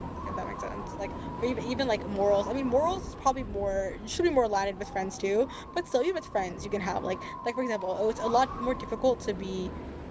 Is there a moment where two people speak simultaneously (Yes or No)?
No